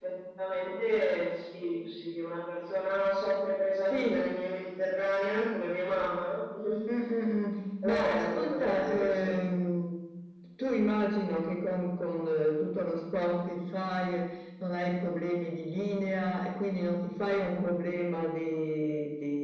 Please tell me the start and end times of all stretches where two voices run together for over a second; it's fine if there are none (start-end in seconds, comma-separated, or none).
7.8-9.3